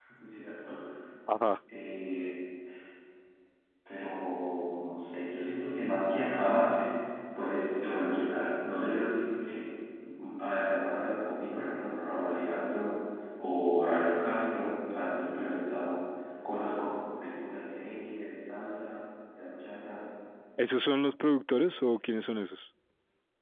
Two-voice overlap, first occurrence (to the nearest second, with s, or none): none